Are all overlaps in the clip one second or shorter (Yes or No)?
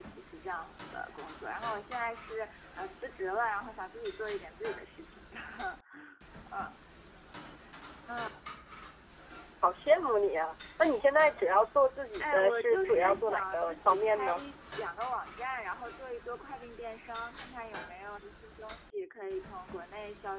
No